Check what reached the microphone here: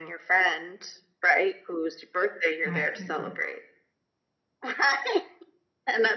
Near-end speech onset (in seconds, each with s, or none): 2.6 s